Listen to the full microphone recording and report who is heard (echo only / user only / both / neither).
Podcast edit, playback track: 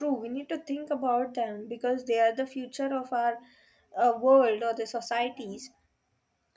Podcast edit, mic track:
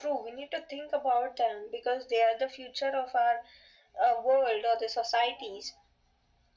echo only